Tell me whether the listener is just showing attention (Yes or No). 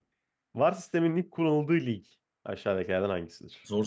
Yes